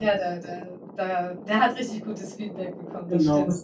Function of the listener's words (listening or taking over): taking over